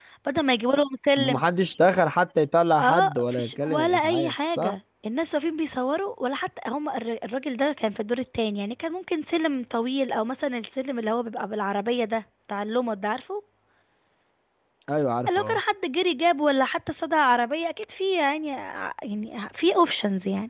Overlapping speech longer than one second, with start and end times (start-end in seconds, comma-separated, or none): 2.8-4.7